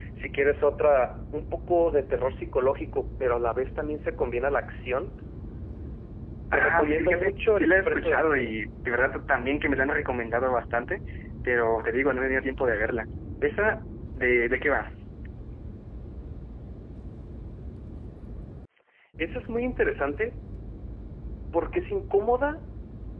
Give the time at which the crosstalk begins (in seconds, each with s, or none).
6.5 s